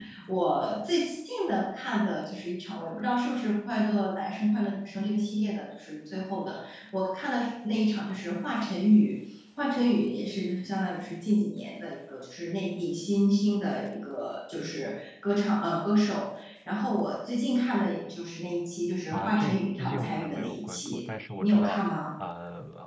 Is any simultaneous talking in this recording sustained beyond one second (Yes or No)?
Yes